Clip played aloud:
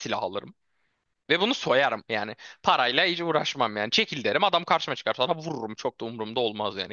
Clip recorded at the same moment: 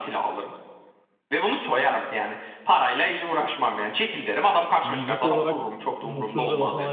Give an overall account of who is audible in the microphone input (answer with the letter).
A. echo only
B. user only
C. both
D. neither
C